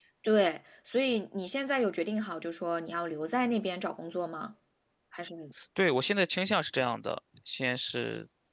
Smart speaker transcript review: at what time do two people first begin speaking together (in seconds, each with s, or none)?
none